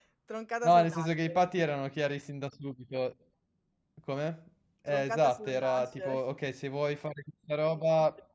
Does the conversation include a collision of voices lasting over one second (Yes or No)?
Yes